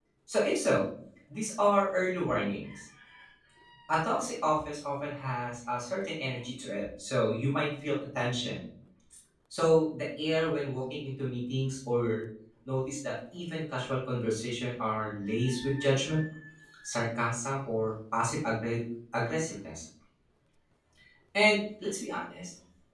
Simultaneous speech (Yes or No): No